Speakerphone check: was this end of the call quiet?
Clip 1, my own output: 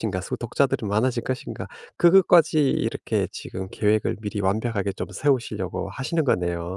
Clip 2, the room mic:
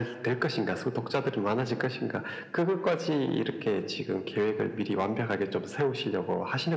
Yes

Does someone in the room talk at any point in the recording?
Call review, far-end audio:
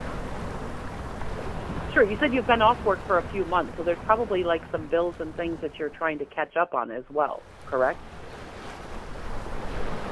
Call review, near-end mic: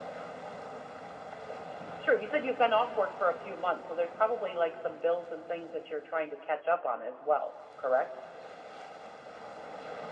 No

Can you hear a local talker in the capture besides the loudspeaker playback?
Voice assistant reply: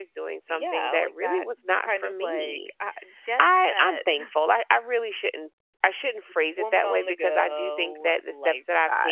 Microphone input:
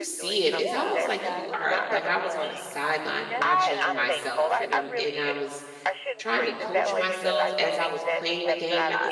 Yes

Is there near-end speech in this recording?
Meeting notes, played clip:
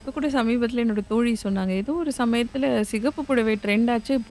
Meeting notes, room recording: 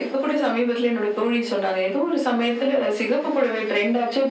No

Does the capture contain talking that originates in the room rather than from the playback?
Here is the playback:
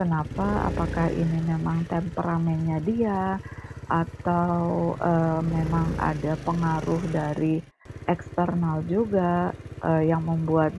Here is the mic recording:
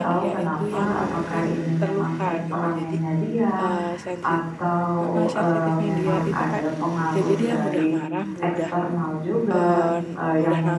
Yes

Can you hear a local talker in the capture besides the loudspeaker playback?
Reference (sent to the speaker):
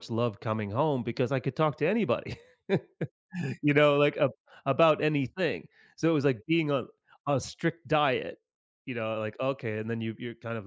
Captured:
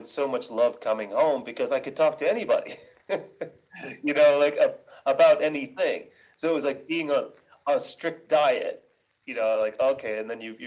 No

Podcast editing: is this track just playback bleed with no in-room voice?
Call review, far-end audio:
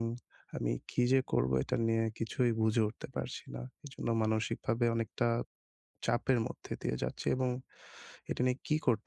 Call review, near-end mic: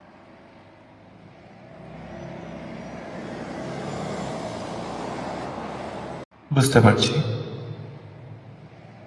No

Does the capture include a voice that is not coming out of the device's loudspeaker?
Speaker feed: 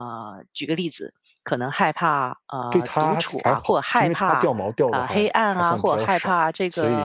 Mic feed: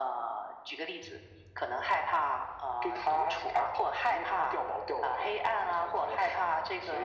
No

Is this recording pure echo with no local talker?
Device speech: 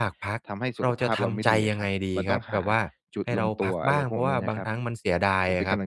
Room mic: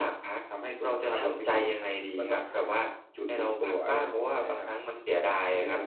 Yes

